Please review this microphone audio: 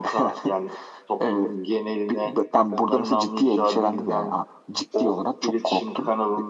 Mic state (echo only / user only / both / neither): echo only